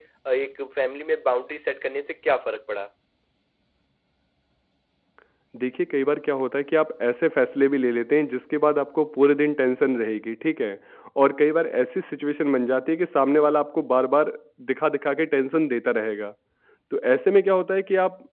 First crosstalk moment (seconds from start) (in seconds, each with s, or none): none